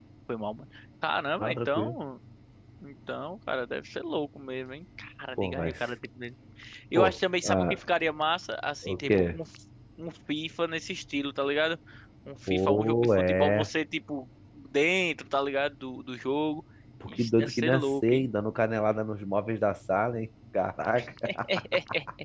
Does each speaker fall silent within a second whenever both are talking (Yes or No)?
No